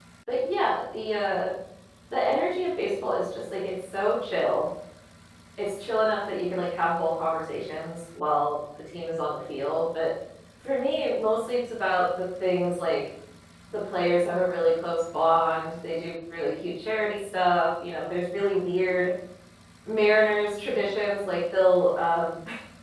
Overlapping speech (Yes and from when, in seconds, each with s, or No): No